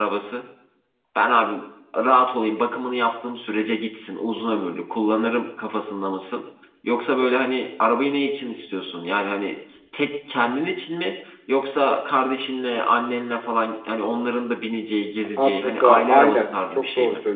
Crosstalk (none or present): present